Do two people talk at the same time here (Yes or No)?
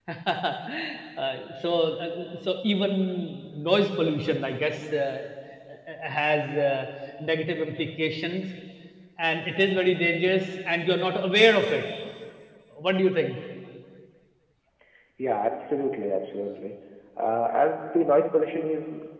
No